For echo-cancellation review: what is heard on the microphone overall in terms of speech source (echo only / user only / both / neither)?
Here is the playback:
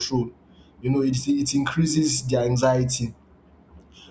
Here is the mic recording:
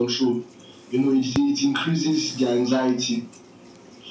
echo only